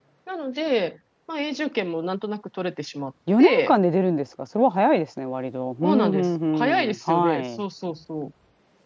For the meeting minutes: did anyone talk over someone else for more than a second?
Yes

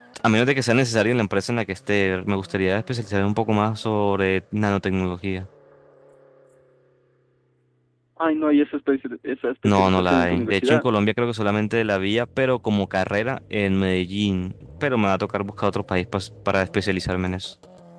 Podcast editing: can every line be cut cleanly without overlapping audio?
No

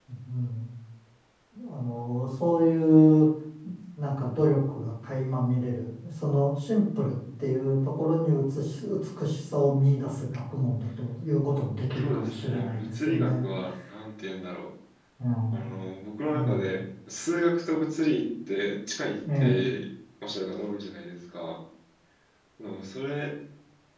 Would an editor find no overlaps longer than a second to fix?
No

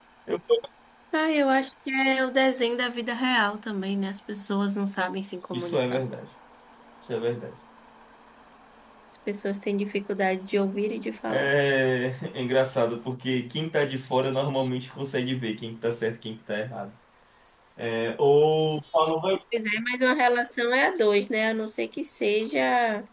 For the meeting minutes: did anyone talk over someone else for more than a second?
No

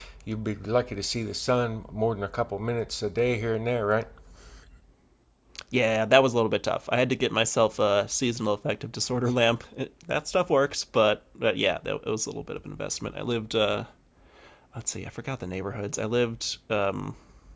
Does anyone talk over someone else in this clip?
No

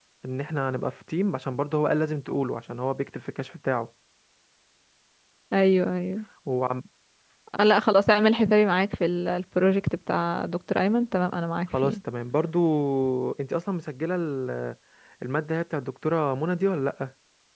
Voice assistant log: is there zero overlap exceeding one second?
Yes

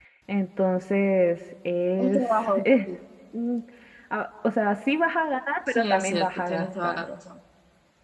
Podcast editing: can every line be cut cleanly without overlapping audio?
No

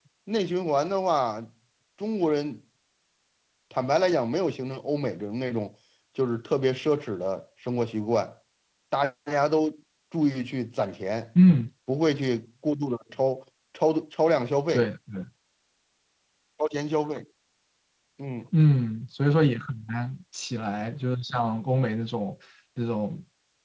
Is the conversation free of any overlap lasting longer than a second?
Yes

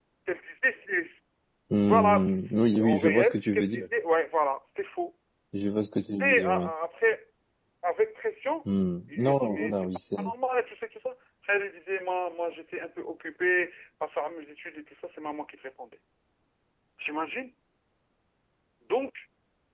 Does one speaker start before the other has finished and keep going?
Yes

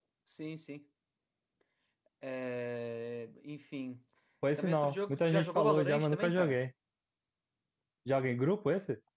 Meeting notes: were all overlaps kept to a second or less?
No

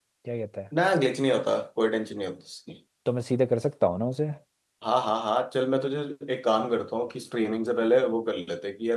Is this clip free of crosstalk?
Yes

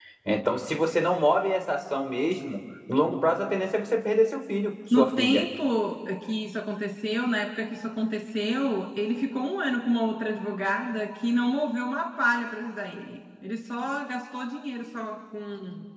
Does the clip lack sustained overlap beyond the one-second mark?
Yes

